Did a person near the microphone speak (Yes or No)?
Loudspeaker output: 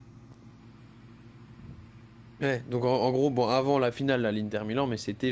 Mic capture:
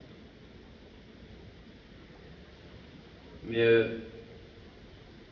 Yes